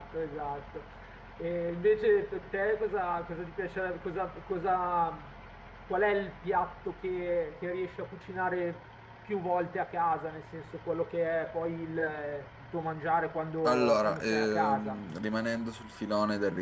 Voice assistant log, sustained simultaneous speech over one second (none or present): present